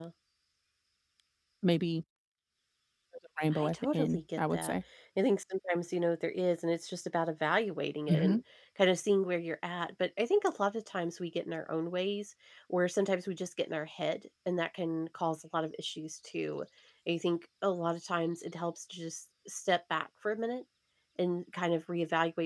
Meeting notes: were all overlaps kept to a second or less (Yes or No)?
No